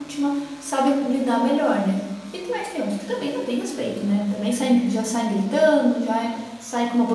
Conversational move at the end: listening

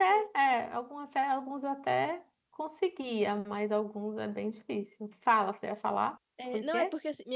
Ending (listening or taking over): taking over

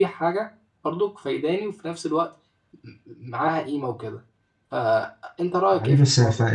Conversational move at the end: taking over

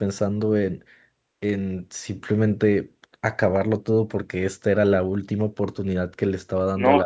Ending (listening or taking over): taking over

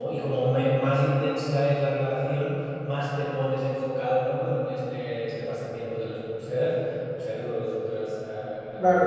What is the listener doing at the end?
taking over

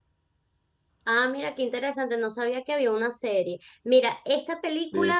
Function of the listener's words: listening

